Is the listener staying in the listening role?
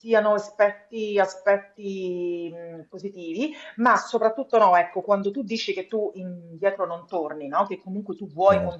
Yes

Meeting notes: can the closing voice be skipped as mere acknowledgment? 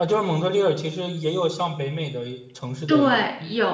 No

